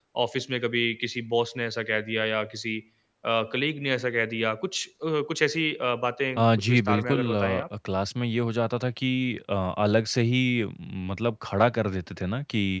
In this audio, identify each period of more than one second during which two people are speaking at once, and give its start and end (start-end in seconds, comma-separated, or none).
6.4-7.6